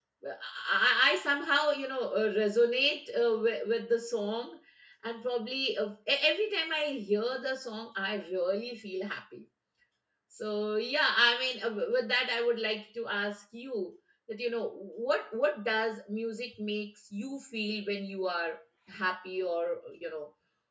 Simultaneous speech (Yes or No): No